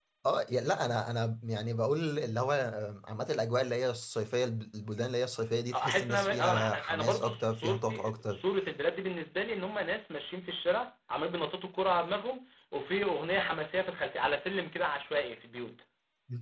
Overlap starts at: 5.7 s

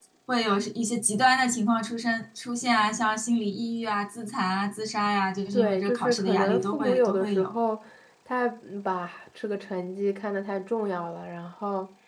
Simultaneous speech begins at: 5.5 s

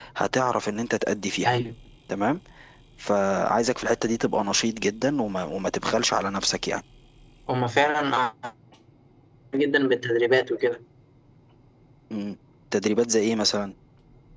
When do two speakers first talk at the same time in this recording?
none

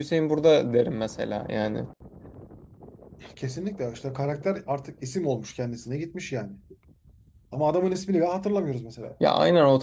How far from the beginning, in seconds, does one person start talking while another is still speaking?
none

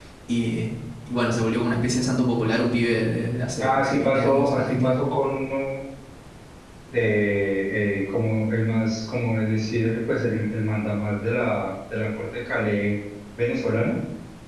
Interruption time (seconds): 3.6 s

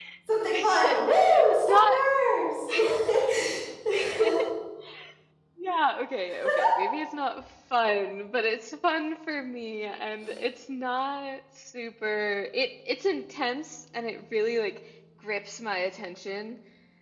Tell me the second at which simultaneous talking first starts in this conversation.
0.5 s

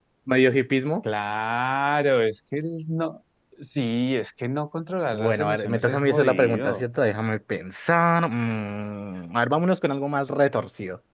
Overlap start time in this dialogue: 5.1 s

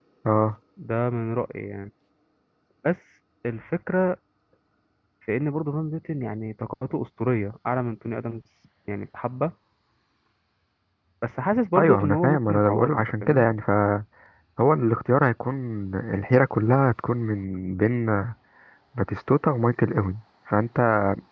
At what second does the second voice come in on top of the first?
11.8 s

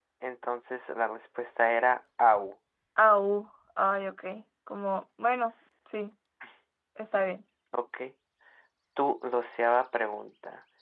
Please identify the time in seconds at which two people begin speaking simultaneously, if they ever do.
none

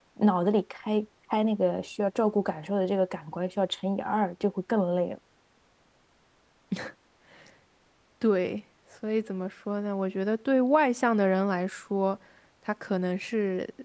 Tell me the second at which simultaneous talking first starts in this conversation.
none

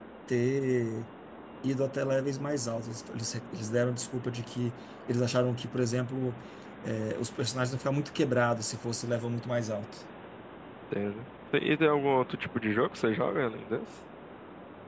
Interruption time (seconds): none

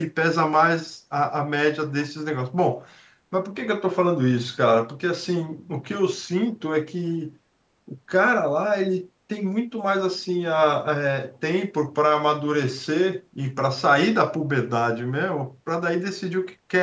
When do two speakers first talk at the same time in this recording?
none

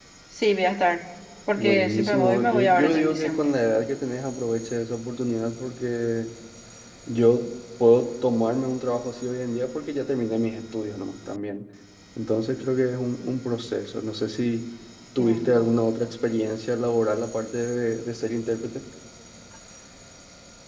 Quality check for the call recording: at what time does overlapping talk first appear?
1.6 s

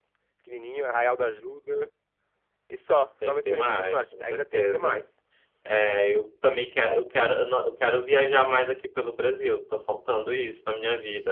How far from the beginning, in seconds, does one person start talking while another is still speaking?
3.2 s

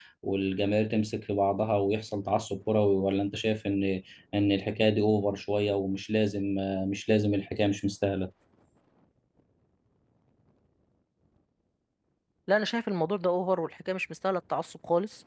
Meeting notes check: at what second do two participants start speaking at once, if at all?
none

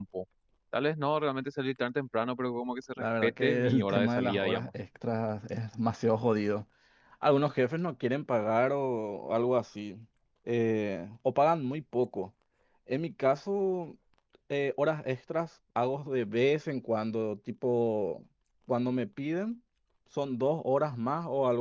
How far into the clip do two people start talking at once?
3.0 s

